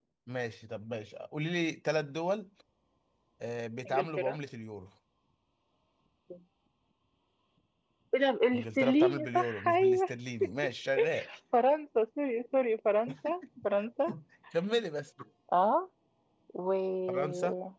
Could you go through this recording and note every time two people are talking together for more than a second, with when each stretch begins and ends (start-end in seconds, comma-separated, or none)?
8.5-10.1